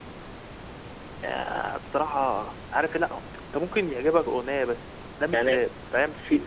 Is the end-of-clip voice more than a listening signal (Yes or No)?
Yes